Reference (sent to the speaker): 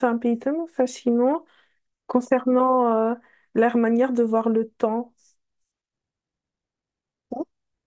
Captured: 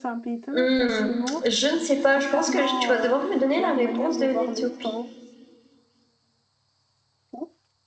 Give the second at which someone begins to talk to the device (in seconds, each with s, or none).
0.5 s